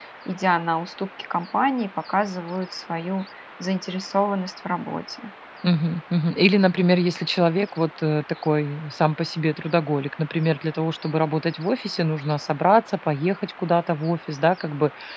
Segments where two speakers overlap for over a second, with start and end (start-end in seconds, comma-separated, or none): none